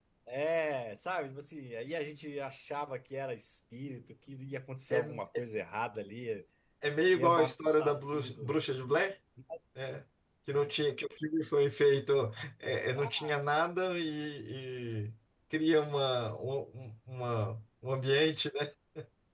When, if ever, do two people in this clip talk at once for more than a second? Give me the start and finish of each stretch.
7.2-8.6

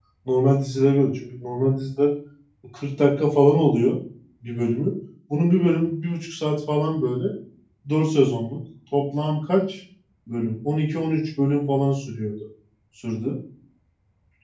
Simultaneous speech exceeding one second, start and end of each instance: none

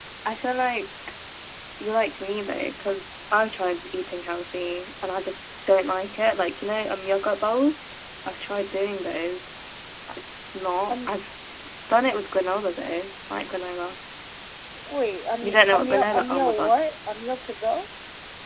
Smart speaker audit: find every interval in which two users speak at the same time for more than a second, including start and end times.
15.4-16.7

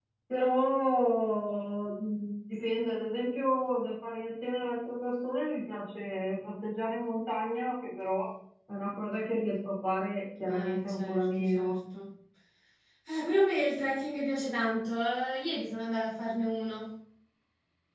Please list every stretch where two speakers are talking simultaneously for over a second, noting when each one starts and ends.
10.5-11.8

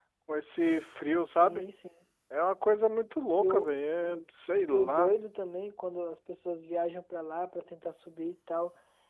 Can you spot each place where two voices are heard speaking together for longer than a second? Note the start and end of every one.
none

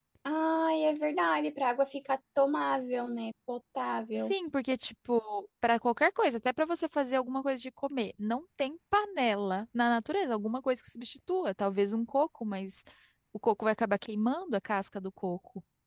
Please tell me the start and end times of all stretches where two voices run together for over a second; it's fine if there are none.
none

